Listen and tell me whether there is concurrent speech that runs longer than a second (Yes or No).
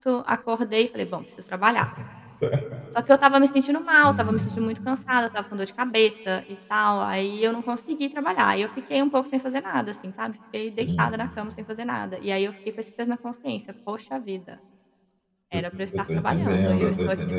Yes